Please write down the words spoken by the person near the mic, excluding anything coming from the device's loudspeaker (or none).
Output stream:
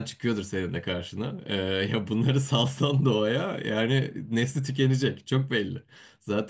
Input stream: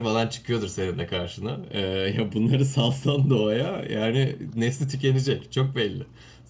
none